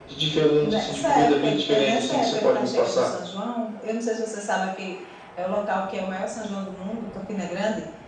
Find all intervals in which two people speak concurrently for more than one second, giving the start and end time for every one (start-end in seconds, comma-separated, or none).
0.6-3.1